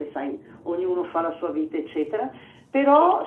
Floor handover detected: No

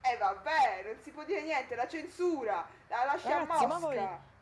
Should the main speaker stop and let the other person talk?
Yes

